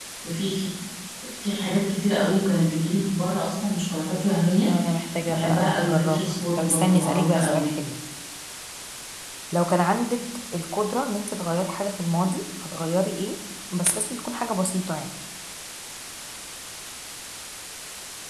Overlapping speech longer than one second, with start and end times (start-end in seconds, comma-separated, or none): 5.3-7.7